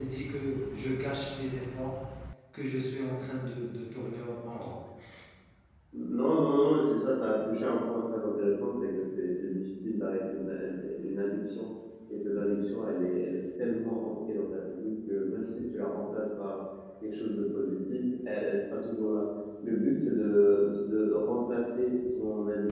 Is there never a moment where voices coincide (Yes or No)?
Yes